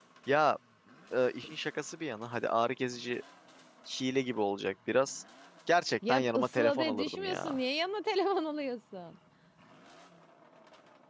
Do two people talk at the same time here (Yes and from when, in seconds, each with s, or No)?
Yes, from 6.1 s